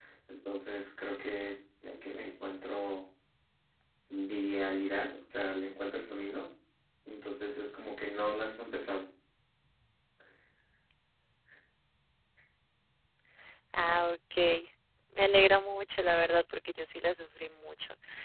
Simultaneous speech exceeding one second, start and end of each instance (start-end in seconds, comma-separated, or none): none